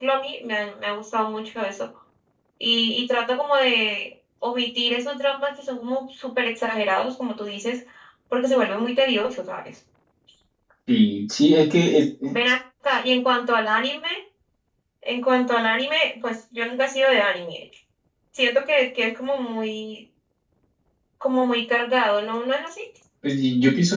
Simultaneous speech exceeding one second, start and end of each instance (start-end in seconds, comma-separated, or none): none